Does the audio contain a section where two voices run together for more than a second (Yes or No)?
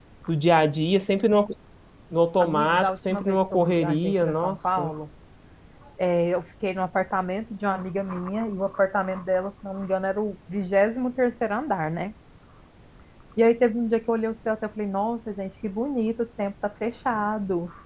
Yes